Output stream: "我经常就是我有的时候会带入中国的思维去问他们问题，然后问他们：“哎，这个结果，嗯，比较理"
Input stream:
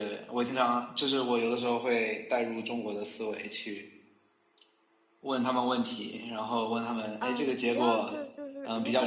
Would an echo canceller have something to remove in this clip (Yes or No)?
Yes